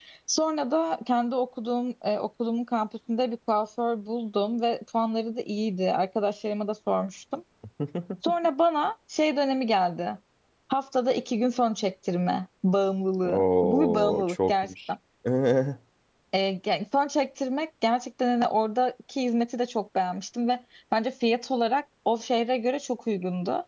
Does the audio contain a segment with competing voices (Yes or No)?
Yes